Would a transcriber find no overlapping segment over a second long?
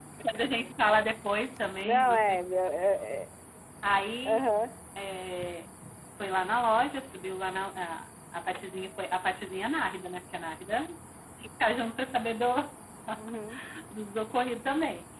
Yes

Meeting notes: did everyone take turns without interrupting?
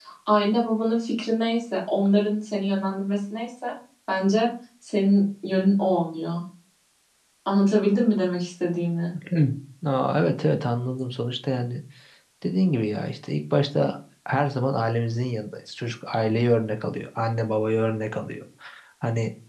Yes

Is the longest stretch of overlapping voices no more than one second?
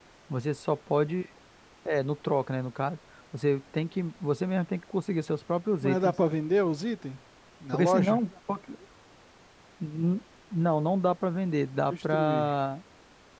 Yes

